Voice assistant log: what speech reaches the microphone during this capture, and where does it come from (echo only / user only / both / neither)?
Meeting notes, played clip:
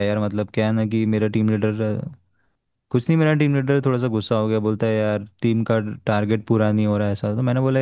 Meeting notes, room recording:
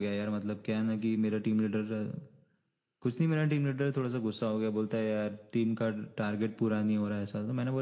echo only